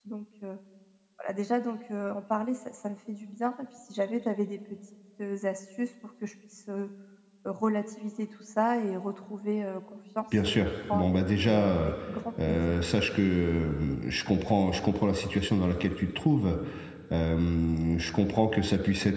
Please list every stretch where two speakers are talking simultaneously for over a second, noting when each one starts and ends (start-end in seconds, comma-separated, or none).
10.5-11.9